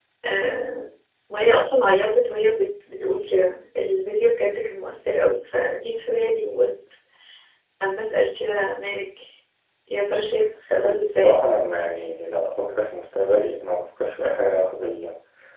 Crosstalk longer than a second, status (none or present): none